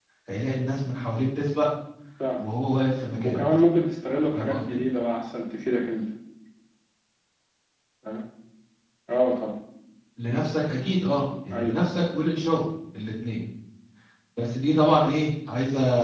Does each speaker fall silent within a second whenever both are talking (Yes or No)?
Yes